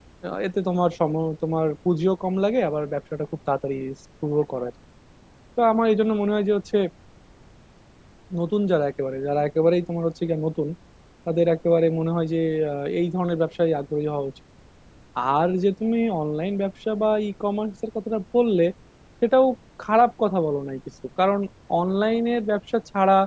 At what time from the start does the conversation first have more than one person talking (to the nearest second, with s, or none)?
none